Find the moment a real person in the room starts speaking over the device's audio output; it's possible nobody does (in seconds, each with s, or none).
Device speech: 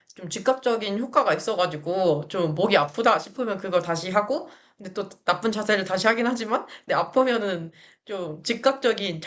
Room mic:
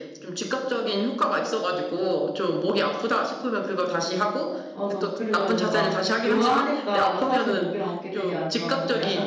4.7 s